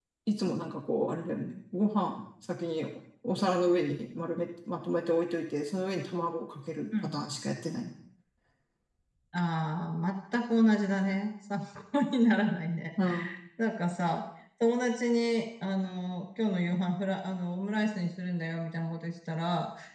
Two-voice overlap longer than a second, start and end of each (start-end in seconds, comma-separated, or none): none